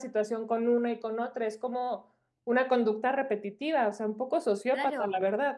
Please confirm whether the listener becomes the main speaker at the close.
Yes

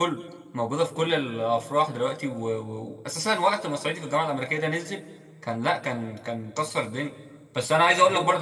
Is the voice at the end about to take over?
No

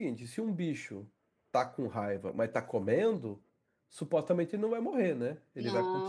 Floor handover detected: Yes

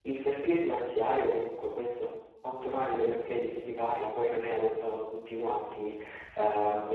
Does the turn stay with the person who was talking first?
Yes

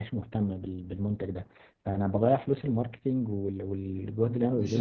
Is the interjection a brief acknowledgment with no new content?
No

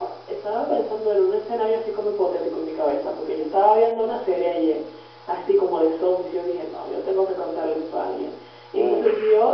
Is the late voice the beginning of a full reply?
No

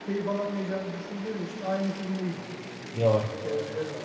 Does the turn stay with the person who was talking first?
Yes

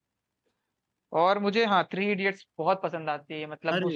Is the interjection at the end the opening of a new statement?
No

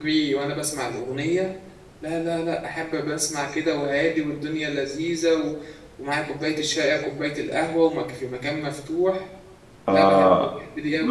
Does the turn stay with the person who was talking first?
No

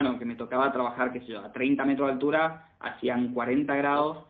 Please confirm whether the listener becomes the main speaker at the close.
No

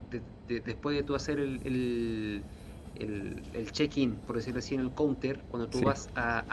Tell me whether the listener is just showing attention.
Yes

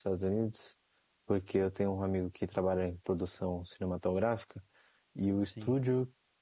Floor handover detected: No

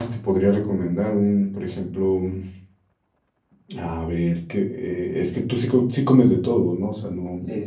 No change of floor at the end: No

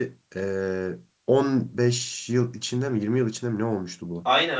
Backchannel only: No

